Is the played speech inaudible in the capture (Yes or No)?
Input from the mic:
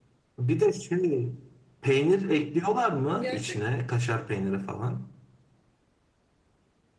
No